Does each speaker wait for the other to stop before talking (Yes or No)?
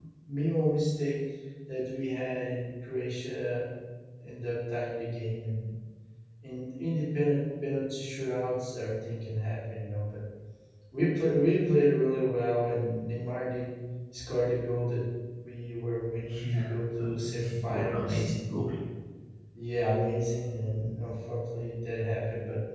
No